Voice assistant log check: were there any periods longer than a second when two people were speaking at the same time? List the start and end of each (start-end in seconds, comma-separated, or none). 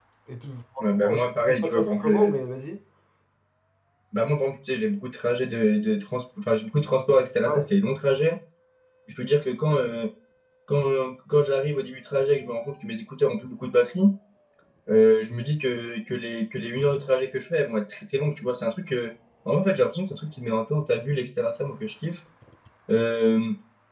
1.0-2.4